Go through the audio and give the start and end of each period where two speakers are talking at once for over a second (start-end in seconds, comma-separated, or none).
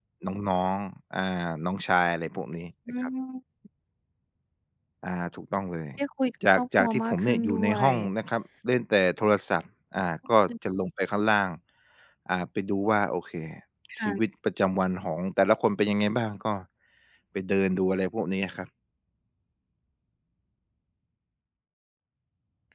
6.5-7.9